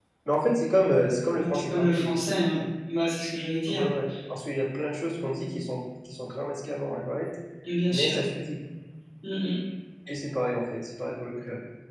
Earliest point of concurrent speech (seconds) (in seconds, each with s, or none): 1.3 s